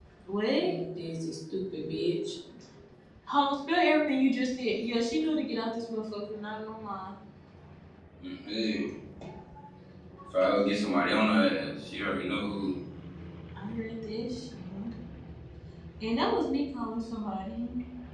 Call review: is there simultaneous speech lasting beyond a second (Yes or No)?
No